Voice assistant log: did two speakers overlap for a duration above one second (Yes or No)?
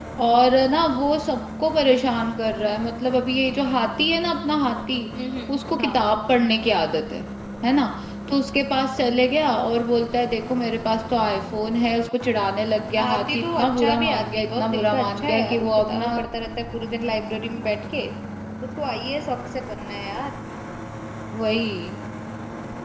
Yes